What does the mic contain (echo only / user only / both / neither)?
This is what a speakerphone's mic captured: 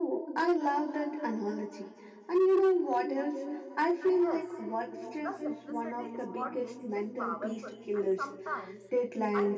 both